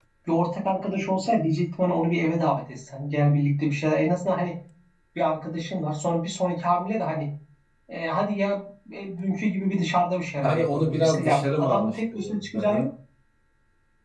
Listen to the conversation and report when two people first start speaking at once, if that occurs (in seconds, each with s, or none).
10.4 s